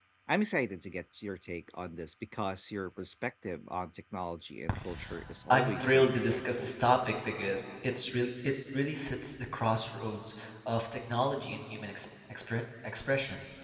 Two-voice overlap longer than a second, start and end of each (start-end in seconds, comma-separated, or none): 5.5-6.8